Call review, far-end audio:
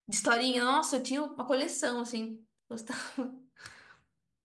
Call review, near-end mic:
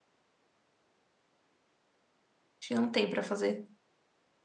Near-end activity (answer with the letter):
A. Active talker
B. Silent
A